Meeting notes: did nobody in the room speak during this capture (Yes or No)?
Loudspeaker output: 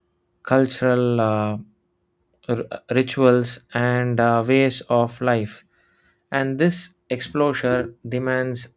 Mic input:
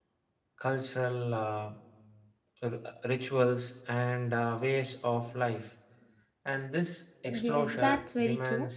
No